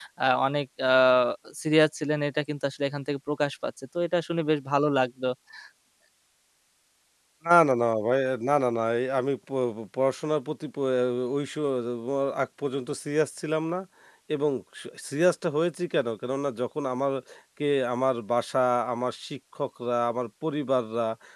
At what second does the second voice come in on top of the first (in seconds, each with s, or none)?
none